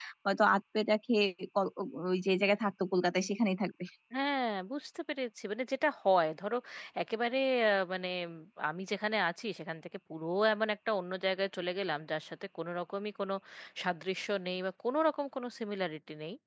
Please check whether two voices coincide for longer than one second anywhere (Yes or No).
No